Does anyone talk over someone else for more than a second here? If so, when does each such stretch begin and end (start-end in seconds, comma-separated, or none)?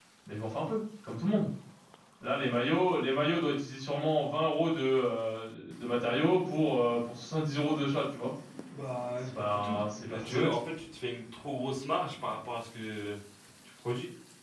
9.2-10.5